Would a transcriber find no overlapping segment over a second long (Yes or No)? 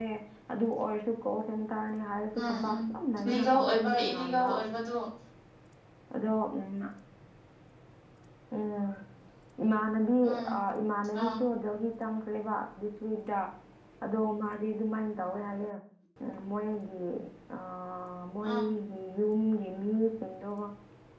No